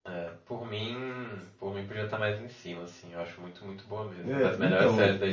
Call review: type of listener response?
taking over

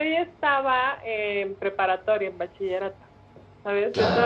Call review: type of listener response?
listening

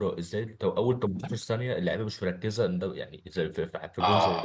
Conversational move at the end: taking over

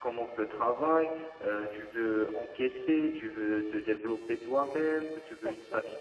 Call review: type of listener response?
listening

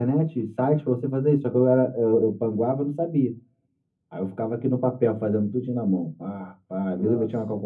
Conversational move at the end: listening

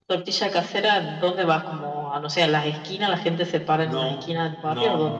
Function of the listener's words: taking over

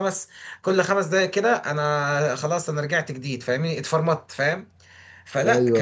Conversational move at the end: listening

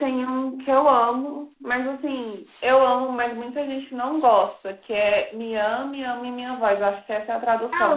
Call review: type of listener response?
taking over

